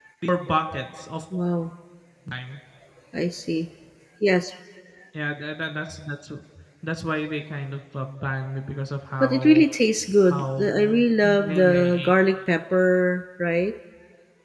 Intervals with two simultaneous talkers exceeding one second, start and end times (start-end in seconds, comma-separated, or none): 10.3-12.1